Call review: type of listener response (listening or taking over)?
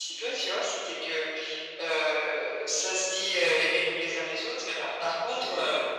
listening